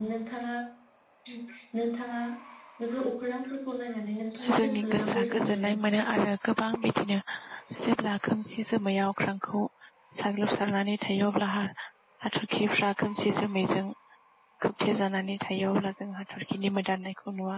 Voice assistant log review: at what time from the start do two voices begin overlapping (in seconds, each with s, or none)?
4.4 s